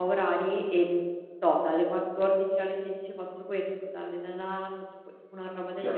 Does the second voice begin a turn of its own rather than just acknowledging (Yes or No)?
Yes